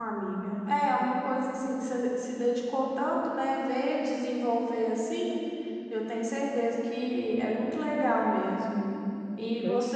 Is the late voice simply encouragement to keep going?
Yes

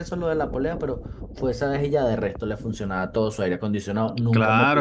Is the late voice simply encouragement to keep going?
No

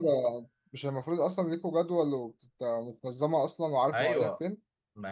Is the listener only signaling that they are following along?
No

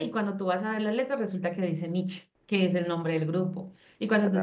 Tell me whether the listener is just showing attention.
Yes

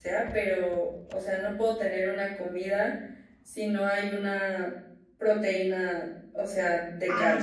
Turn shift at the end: Yes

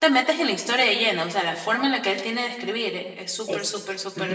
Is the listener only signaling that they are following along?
No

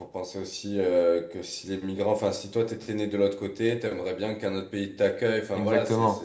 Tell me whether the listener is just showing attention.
Yes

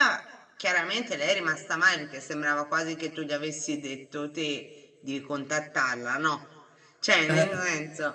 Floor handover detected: No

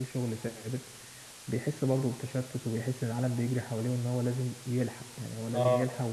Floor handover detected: No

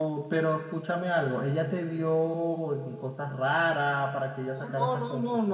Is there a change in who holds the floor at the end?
Yes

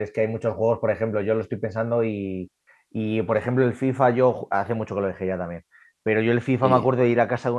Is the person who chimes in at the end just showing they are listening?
Yes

